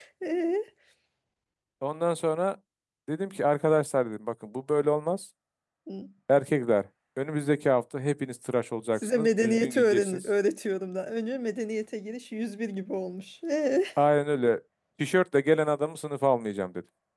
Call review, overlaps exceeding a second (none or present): present